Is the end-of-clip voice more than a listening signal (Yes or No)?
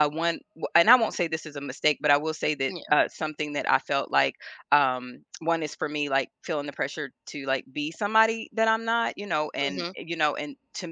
No